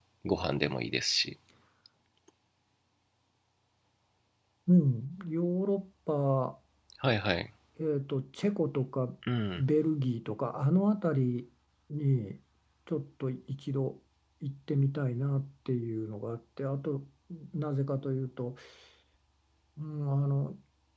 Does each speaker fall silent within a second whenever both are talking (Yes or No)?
Yes